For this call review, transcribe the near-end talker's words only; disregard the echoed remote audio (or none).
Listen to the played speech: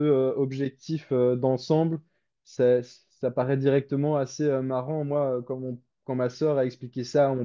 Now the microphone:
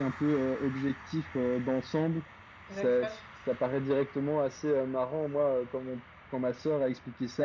D'accord.